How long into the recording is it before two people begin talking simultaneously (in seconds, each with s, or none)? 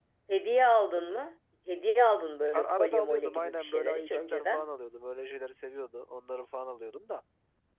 2.5 s